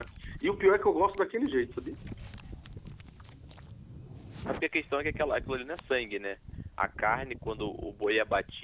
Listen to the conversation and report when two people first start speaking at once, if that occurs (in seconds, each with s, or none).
none